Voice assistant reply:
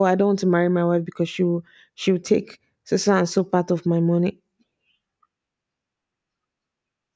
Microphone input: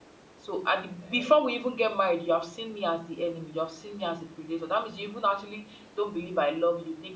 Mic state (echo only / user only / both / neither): user only